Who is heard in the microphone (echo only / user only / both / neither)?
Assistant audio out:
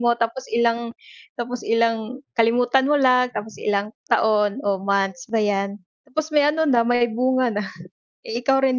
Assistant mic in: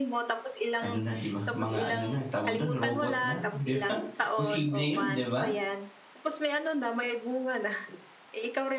both